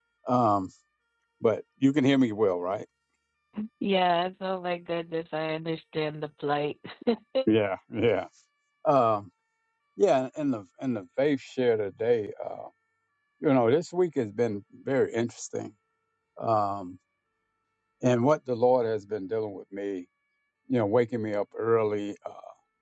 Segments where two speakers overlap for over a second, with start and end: none

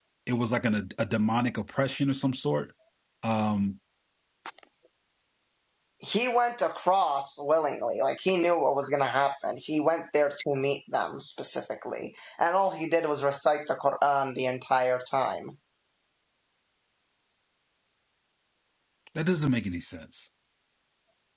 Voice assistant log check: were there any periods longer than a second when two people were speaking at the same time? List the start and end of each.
none

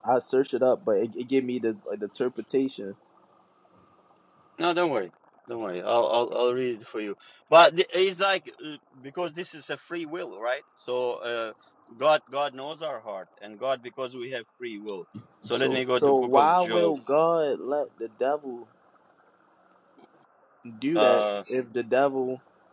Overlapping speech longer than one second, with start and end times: 15.5-16.9

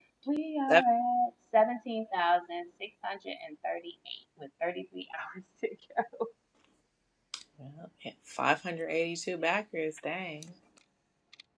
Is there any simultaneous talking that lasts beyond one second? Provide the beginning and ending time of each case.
none

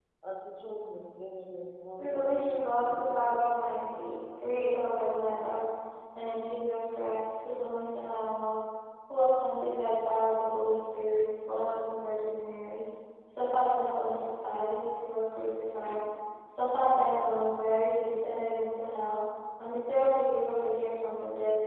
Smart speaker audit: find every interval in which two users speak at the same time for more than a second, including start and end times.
2.0-4.2

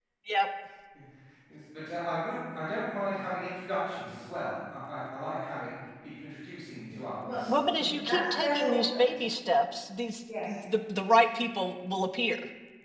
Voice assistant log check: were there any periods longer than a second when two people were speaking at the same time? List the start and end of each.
6.9-9.2

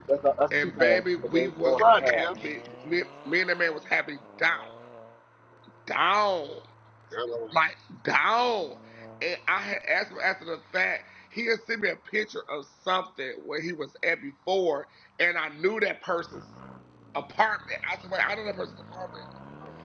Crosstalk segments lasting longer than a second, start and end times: 0.6-2.3

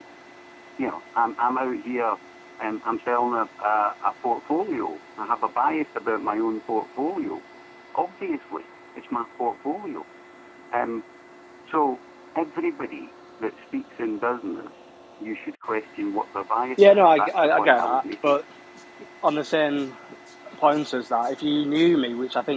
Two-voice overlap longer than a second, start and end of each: 16.8-18.3

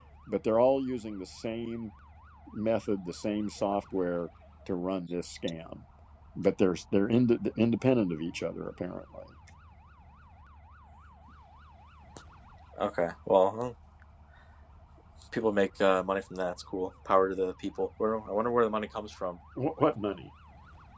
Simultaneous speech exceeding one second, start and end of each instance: none

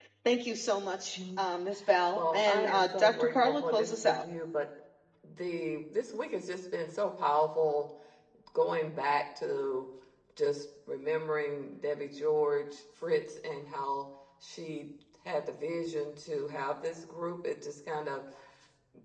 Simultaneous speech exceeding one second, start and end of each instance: 2.2-4.2

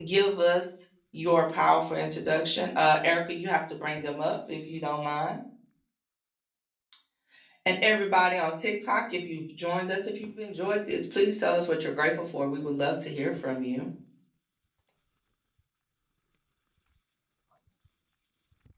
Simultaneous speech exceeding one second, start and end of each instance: none

